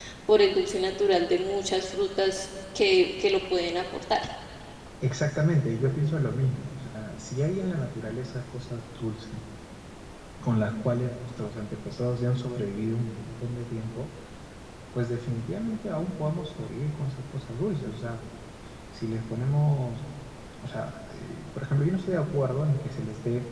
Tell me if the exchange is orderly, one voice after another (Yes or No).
Yes